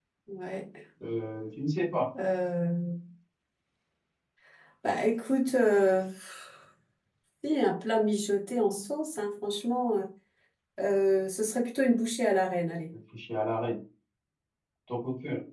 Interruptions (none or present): none